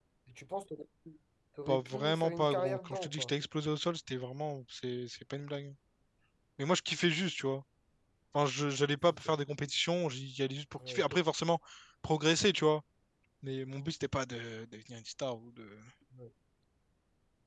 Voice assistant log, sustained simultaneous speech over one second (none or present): present